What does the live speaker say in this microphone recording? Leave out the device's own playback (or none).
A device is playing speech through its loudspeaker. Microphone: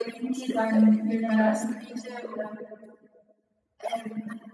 zu sagen, ich will dann da.